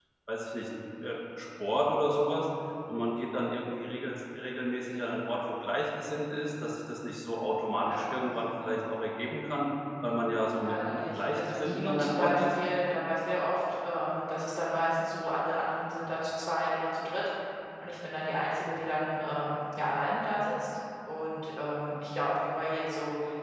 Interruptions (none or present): present